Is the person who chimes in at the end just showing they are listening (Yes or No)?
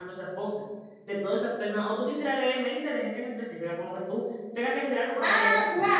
No